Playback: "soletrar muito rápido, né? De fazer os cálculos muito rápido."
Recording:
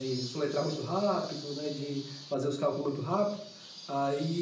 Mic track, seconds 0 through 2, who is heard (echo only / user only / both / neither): echo only